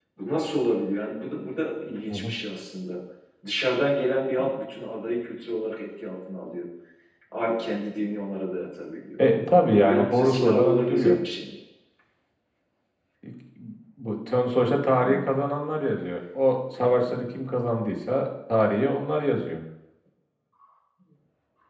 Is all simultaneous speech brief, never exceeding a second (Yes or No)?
No